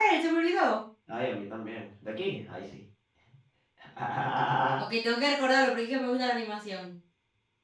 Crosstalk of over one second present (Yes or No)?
No